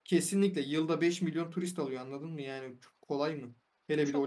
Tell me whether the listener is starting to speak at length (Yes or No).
No